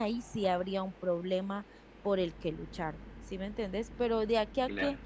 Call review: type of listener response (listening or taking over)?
listening